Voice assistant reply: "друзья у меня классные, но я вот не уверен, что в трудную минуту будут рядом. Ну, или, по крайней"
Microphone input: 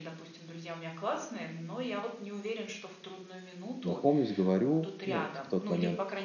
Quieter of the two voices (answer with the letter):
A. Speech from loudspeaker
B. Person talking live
A